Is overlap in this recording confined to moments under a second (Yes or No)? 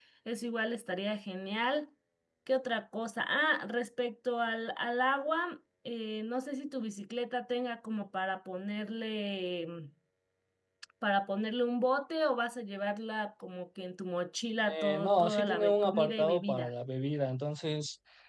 No